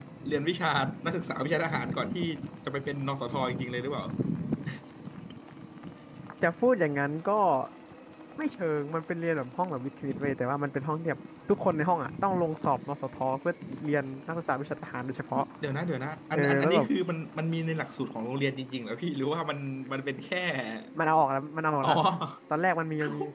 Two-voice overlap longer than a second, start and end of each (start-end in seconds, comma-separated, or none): none